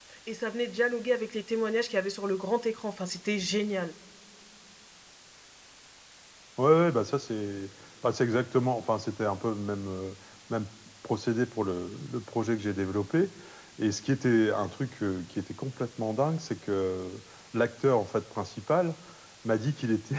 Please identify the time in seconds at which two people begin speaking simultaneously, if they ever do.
none

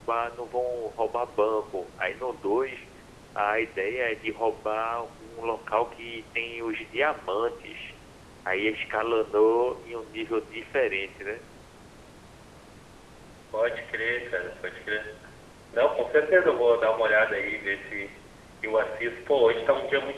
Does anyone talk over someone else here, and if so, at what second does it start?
none

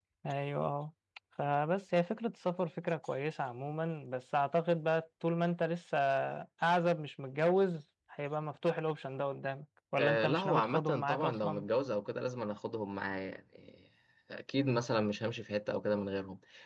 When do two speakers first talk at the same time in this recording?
10.0 s

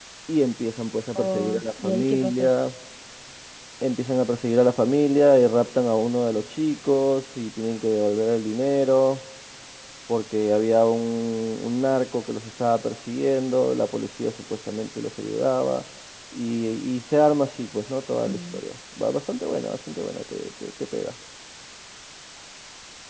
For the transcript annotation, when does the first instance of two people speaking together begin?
1.1 s

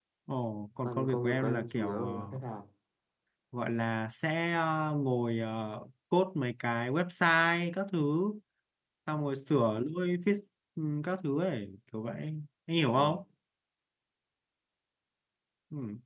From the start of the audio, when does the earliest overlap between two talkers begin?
0.8 s

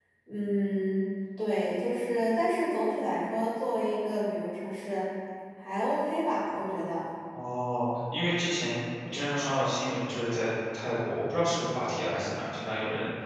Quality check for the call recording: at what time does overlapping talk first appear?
none

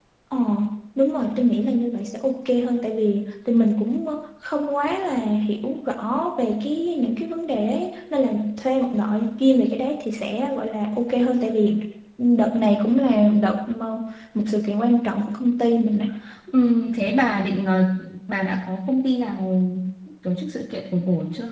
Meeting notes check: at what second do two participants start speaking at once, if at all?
none

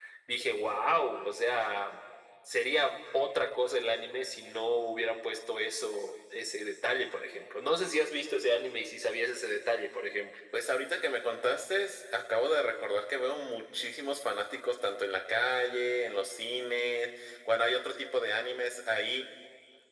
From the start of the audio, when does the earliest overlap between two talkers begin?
none

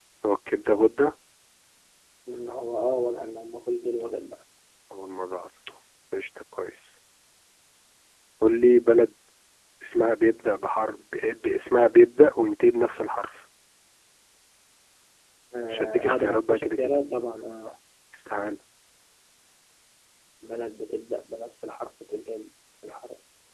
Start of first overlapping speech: 15.7 s

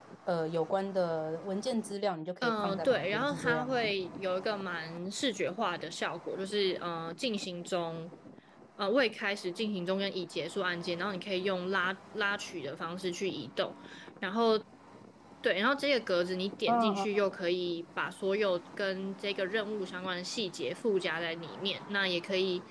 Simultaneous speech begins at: 2.4 s

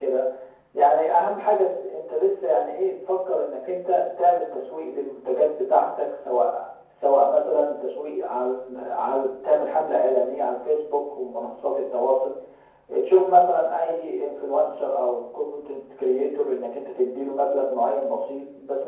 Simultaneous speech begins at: none

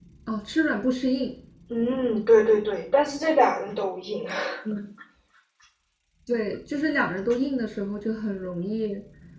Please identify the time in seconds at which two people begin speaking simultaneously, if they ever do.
none

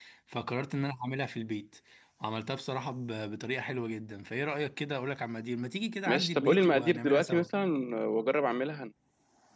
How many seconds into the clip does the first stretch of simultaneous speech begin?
6.1 s

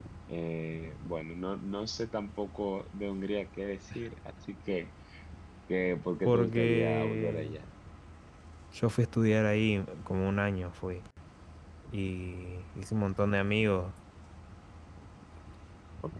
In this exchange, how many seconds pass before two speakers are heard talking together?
6.2 s

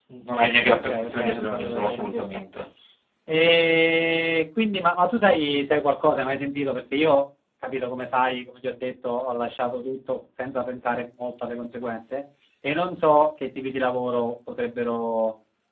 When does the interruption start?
0.6 s

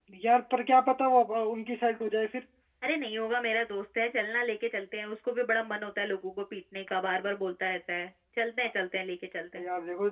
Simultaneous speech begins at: none

